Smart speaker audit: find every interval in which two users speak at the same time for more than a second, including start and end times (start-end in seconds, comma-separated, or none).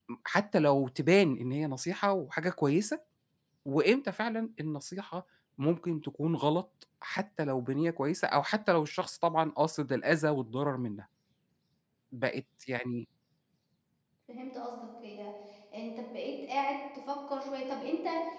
none